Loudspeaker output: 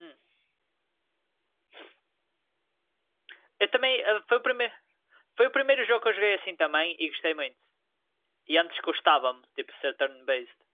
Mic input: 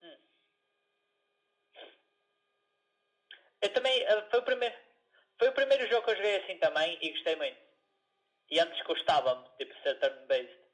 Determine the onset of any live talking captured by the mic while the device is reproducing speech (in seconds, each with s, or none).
none